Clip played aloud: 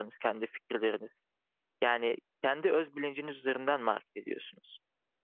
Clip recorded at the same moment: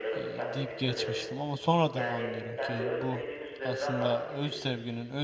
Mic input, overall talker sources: both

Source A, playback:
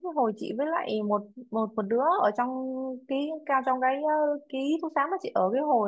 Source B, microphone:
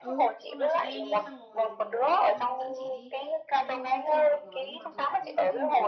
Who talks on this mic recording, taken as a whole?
both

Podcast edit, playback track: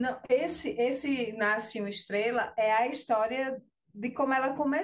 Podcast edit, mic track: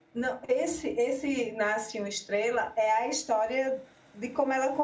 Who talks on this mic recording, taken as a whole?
echo only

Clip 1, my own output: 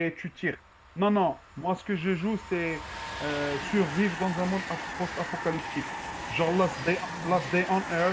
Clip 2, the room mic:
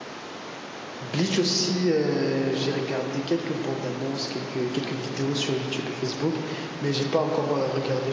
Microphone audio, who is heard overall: user only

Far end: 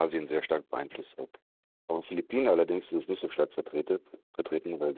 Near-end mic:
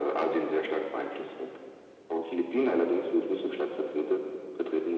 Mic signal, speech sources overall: echo only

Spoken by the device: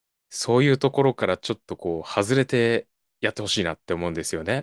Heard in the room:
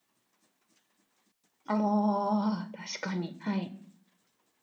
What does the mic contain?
user only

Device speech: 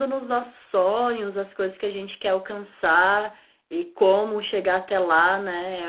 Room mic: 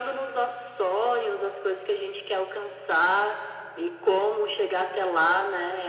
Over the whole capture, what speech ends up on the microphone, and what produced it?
echo only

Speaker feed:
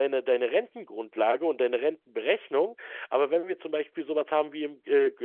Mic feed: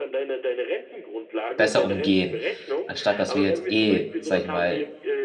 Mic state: both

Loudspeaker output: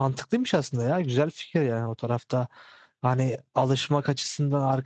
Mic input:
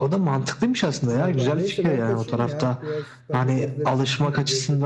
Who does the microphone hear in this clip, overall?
both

